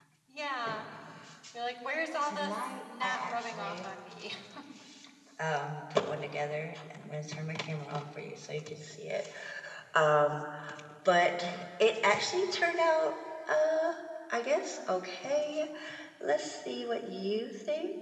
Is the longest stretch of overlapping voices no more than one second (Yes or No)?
No